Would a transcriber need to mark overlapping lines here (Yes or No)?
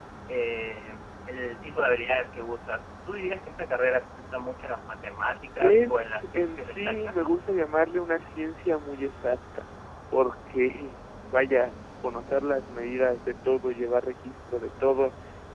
Yes